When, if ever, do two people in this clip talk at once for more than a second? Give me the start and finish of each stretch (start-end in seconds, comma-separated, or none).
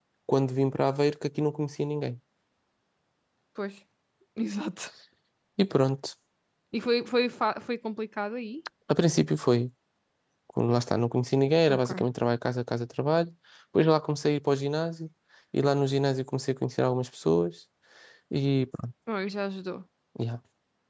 none